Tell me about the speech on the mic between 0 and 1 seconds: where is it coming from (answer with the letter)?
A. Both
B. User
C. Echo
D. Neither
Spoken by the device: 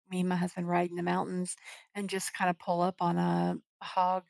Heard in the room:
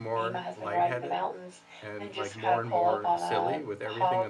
A